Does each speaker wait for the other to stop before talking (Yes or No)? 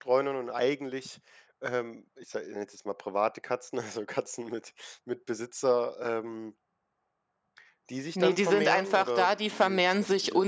No